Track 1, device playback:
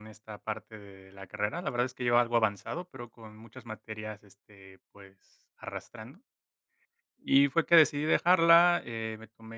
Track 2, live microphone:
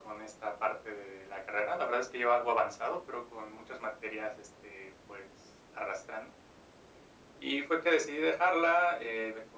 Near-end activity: none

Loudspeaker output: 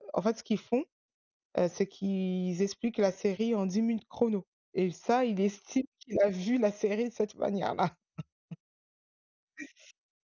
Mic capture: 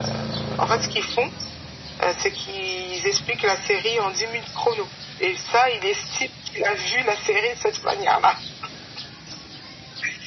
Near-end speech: none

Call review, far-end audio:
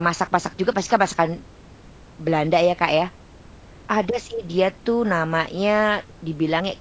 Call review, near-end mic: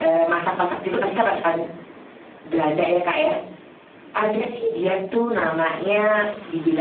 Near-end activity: none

